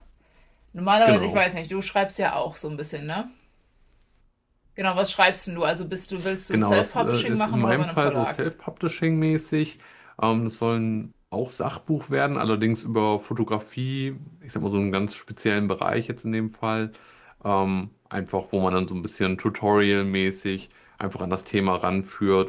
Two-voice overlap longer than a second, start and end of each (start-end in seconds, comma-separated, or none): 6.5-8.4